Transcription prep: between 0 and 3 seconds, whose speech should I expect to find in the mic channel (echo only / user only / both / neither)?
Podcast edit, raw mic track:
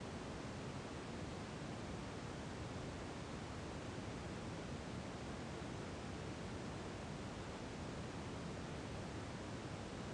neither